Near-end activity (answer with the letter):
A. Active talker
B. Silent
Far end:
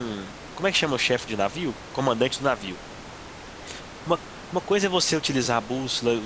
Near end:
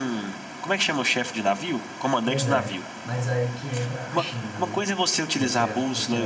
A